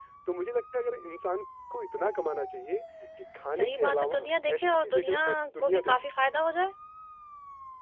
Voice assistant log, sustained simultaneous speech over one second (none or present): present